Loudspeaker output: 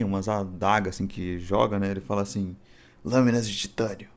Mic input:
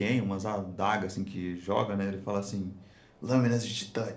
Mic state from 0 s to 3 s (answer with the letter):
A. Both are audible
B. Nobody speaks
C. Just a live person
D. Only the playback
D